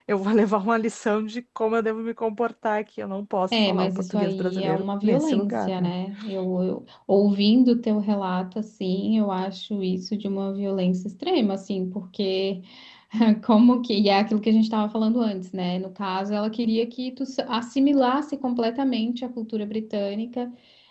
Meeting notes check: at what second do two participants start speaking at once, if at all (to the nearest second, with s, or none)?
4 s